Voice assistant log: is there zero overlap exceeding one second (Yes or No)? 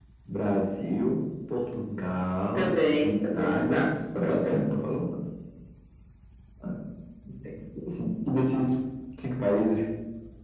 No